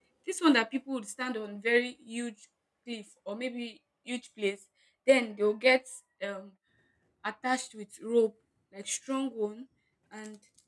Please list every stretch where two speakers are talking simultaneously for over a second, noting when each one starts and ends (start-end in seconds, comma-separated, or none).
none